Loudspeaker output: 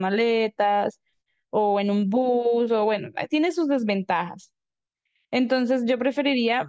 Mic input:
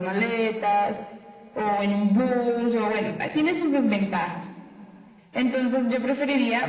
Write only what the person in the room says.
none

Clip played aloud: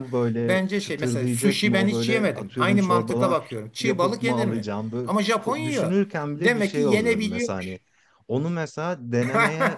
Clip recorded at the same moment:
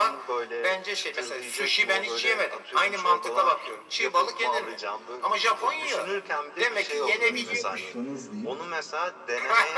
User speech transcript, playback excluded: neyse kussanız diyeyim

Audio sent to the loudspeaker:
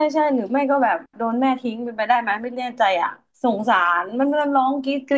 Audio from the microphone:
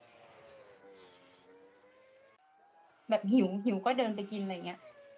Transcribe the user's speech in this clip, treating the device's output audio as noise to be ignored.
แบบหิวหิวก็เดินไปกินอะไรเงี้ย

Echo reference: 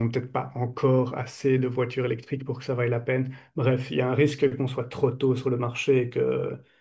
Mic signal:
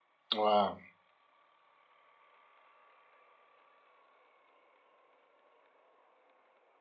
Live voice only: ouais.

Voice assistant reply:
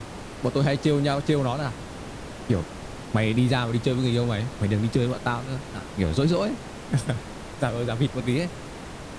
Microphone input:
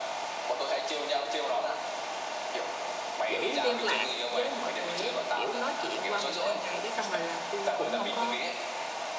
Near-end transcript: giữ liên lạc với mọi người ấy kiểu nói chuyện qua một hai ngày cái xong rồi là tôi cũng không có

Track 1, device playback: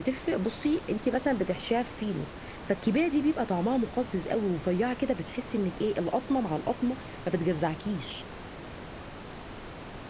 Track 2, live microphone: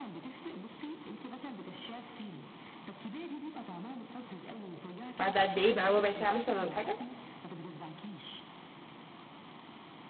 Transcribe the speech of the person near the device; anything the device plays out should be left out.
بعد قد ايه بقى ربع ساعه مثلا ولا حاجه

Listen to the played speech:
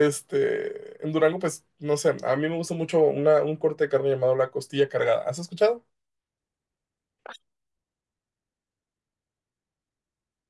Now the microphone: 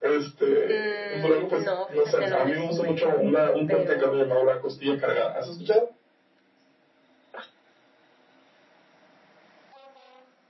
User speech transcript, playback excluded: Mm, no, fíjate, no me suena, pero...

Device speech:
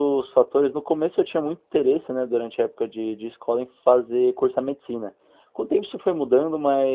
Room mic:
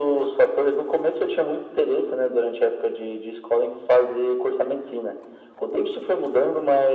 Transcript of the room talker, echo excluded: none

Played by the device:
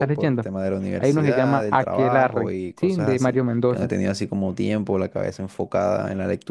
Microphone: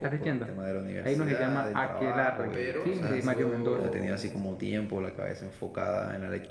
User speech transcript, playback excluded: pero tengo,

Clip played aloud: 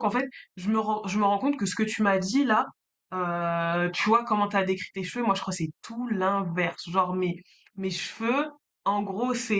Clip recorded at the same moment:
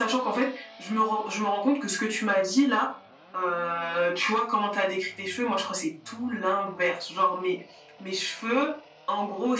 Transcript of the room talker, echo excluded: none

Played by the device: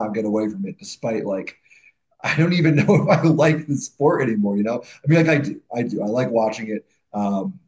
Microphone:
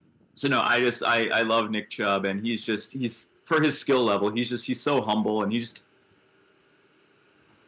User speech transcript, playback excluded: so no, I just I I love Nick Chubb, and he's just he's for his skill level, he's just he's so humble, and he just

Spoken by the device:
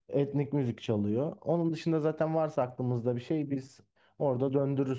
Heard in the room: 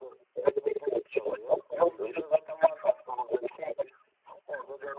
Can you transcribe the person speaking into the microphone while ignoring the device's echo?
Nasıl?

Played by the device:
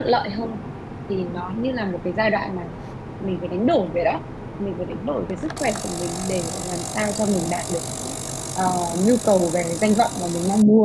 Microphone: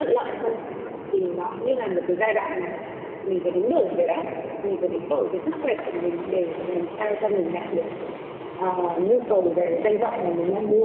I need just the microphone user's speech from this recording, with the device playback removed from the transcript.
none

